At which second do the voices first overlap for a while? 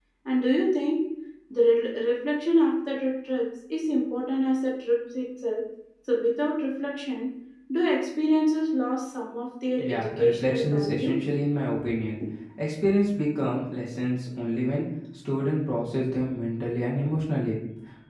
9.8 s

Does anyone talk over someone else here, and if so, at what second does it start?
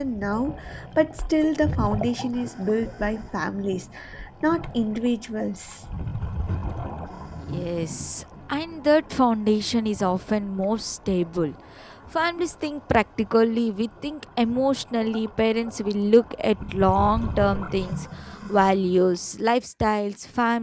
none

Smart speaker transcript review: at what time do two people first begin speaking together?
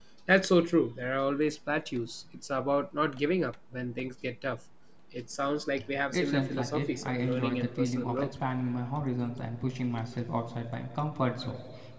6.1 s

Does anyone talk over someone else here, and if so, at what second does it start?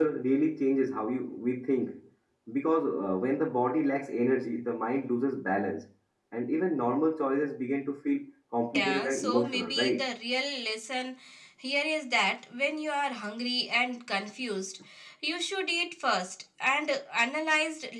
8.7 s

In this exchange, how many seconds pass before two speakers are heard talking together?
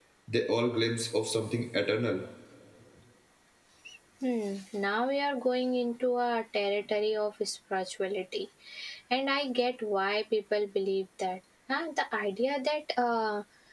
none

